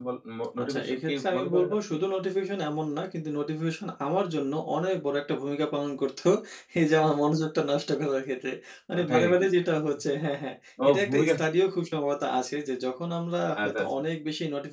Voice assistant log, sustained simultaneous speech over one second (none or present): present